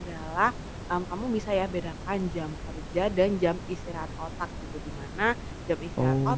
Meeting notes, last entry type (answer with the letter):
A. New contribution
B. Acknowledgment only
B